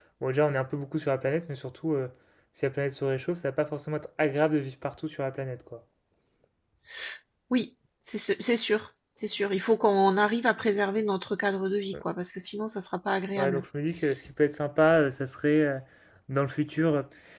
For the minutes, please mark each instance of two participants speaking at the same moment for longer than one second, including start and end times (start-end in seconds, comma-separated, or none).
none